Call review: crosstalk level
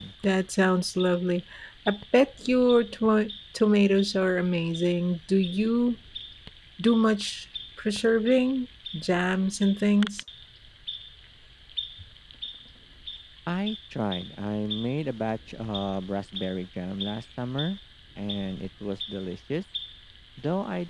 none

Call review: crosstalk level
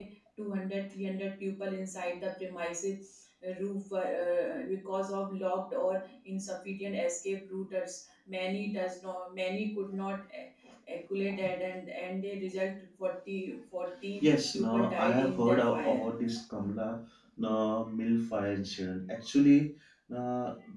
present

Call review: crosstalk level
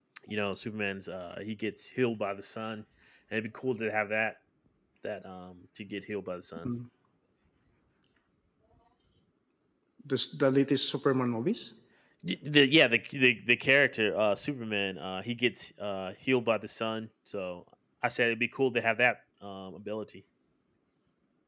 none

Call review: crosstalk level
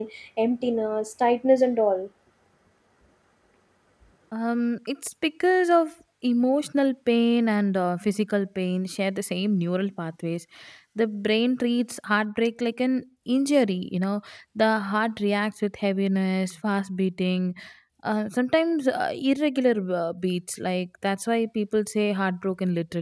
none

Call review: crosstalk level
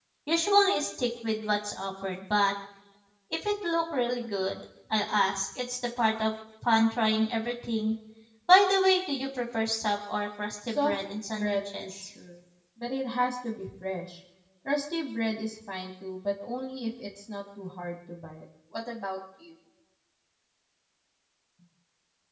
present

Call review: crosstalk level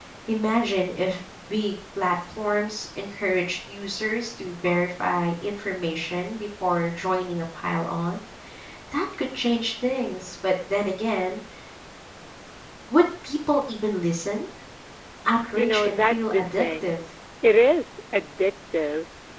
present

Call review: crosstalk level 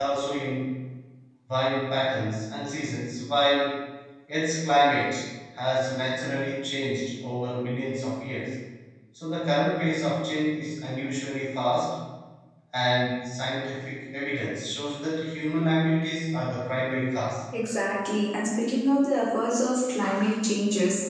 none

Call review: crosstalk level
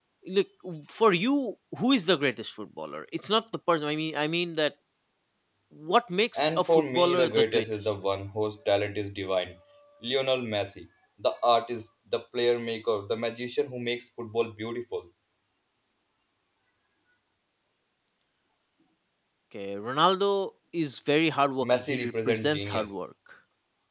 present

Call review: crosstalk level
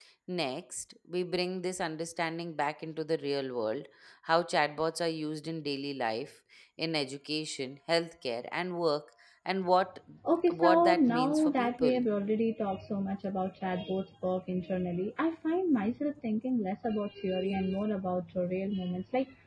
present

